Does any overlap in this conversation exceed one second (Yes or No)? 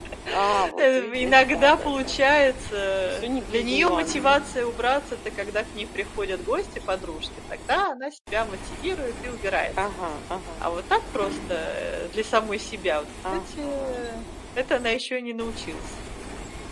Yes